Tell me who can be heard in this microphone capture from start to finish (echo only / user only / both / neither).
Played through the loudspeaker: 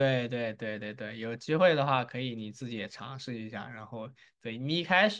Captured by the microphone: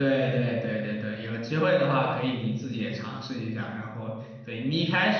echo only